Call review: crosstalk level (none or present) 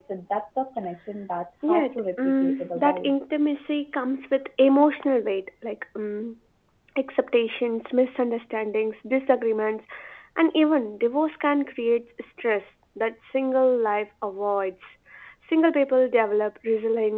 present